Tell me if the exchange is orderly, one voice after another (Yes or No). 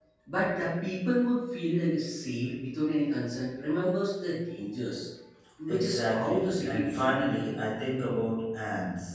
No